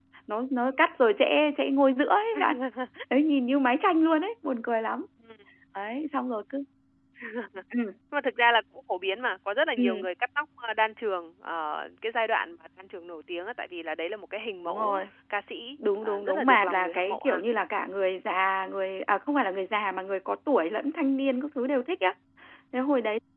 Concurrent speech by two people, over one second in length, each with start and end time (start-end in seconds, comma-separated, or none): 16.0-17.4